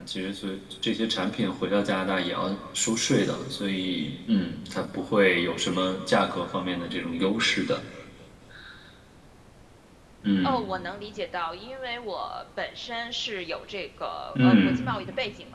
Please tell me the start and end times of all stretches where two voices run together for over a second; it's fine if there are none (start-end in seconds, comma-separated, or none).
none